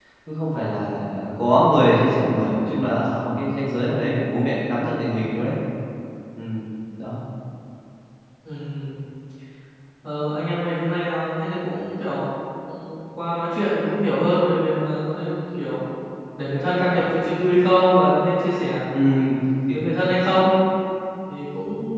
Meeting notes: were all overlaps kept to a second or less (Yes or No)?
Yes